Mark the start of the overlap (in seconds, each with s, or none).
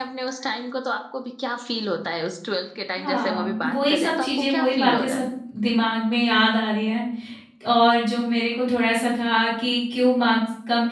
3.0 s